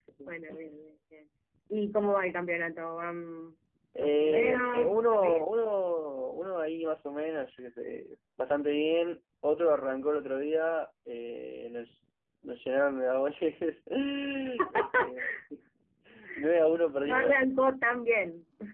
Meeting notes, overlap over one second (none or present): present